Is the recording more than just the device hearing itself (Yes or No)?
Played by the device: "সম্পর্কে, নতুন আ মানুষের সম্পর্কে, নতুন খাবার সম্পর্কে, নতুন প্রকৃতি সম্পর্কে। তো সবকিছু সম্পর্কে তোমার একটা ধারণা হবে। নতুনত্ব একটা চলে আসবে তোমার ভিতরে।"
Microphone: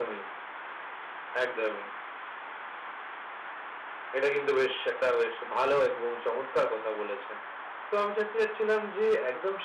Yes